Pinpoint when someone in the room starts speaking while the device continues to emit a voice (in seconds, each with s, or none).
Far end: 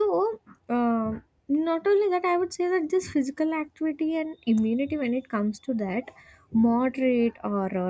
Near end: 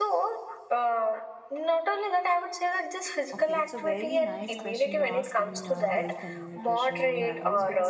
3.3 s